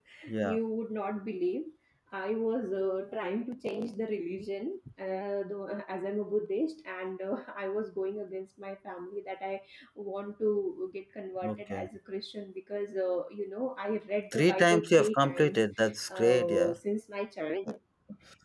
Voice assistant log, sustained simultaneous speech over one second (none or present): present